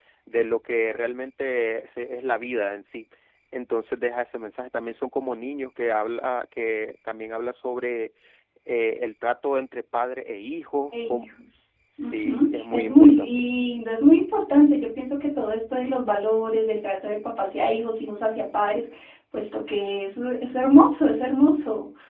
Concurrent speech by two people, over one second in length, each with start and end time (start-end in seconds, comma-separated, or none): 12.0-13.4